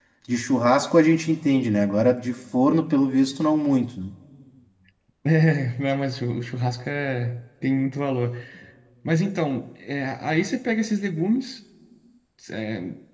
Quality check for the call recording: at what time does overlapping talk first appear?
none

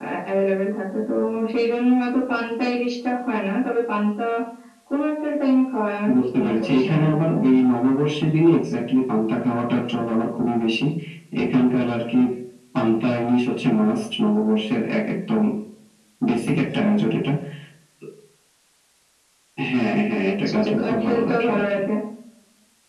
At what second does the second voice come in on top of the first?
6.1 s

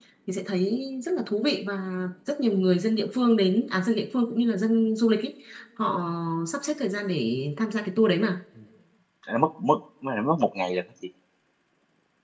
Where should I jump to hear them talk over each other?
none

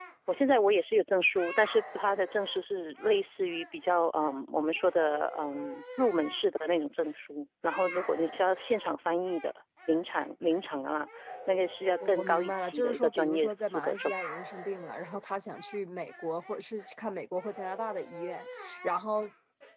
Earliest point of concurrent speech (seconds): 12.0 s

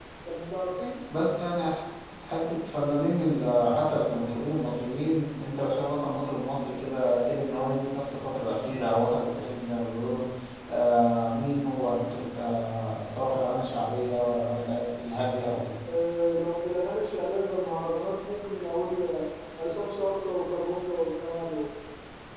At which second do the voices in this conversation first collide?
none

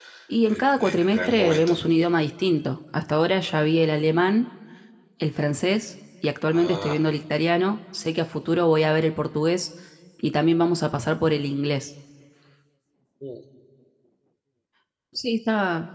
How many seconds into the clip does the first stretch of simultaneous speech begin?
0.5 s

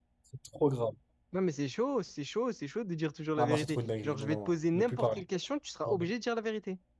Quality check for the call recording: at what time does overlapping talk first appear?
3.4 s

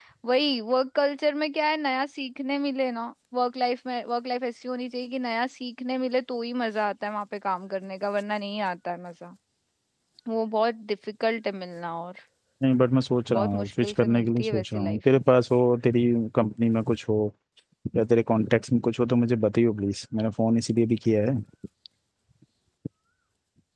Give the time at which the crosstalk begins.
13.3 s

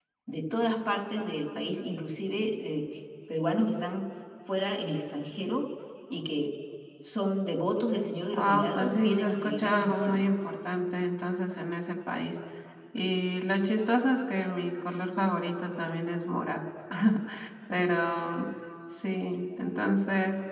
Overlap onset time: 8.3 s

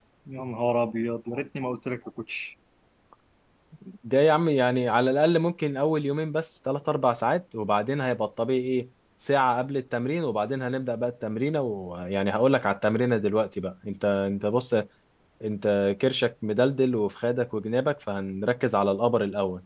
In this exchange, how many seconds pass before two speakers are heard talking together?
none

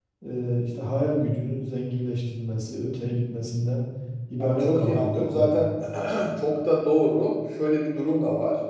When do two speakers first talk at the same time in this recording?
4.4 s

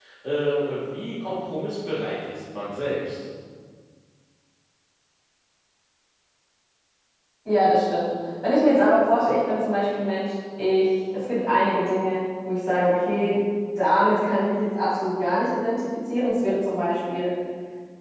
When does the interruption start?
none

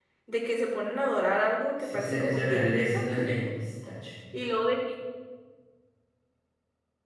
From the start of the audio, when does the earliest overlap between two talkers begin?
1.8 s

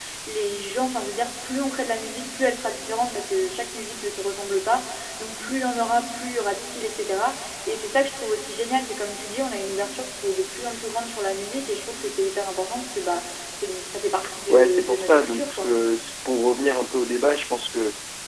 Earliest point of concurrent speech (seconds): 14.5 s

